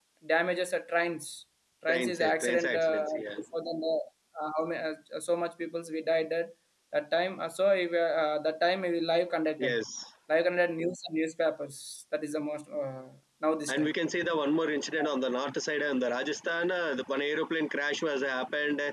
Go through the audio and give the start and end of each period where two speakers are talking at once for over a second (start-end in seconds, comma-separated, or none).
1.9-3.2